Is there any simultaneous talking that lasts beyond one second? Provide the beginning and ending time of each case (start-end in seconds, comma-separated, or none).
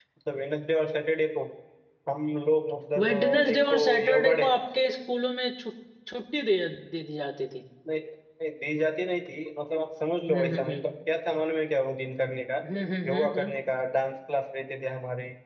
3.0-4.5